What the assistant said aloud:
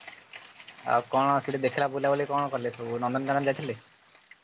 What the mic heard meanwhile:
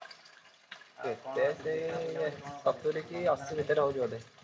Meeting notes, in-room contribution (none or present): present